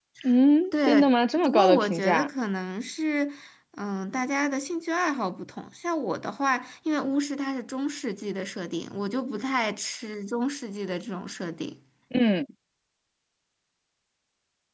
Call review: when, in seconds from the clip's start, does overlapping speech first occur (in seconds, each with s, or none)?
0.8 s